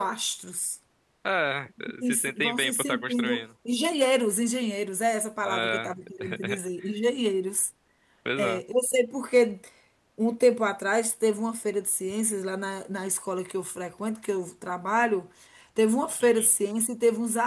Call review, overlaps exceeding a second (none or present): present